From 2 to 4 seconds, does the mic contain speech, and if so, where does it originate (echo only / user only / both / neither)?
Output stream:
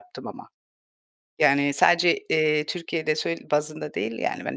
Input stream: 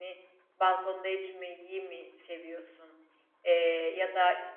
user only